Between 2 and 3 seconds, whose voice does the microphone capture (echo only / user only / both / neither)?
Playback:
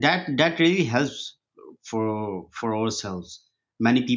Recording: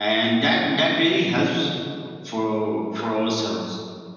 echo only